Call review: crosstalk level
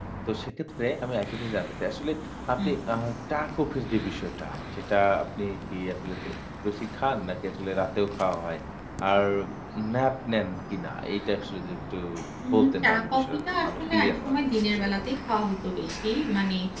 present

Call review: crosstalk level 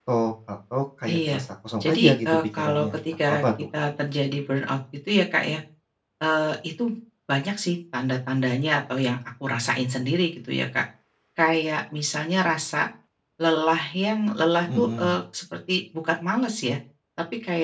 present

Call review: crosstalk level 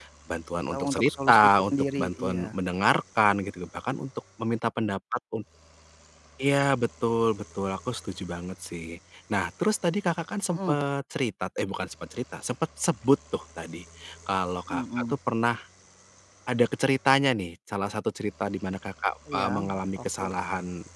present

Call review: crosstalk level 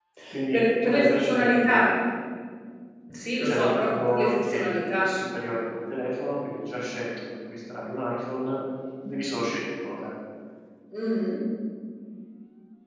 present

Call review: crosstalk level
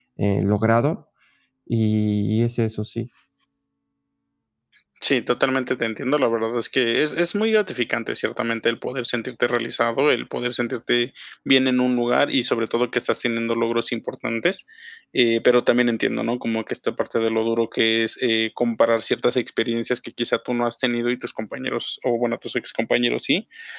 none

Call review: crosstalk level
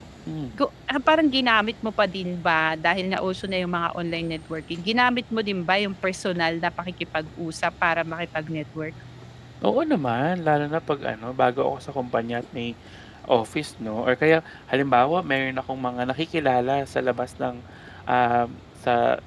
none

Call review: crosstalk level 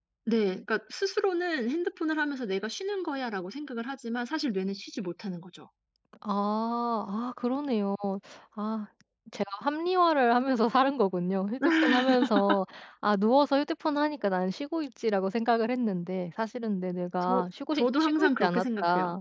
present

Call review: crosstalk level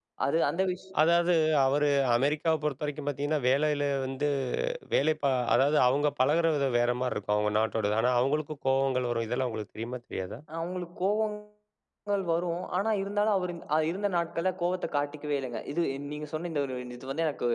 none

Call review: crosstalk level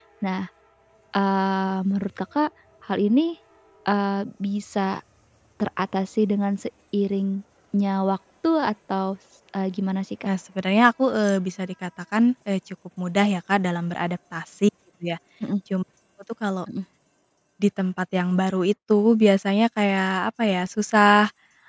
none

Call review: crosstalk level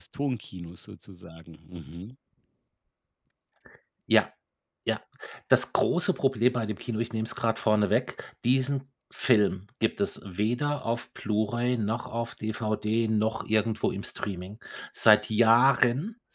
none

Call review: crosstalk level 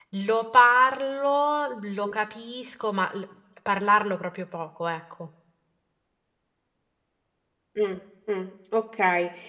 none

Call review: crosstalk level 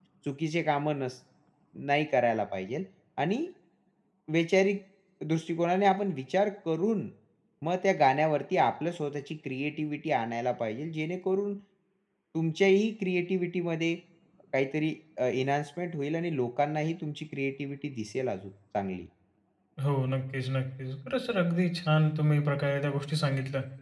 none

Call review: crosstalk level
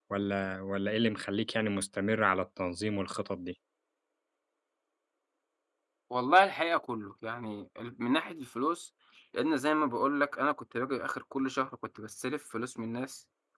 none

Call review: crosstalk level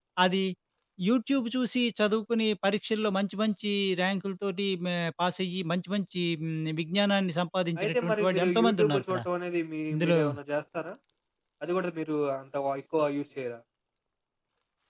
present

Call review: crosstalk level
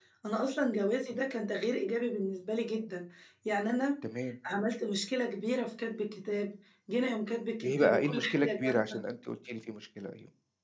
present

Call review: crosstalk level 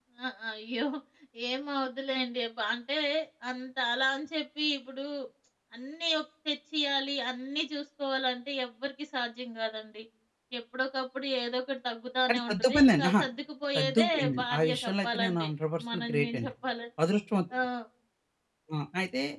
present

